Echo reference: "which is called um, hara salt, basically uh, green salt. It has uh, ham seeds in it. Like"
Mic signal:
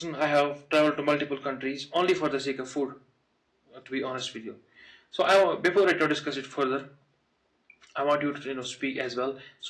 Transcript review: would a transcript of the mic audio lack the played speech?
Yes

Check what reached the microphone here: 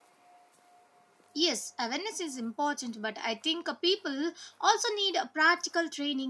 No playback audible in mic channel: Yes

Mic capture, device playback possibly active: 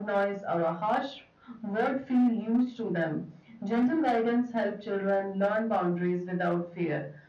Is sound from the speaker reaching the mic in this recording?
Yes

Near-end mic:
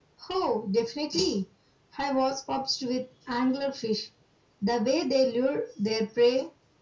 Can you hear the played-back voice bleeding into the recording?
Yes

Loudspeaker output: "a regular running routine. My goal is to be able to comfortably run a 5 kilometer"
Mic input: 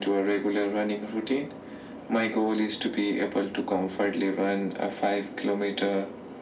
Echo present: Yes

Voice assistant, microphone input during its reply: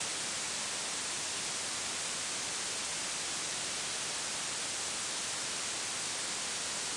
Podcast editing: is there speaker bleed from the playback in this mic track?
No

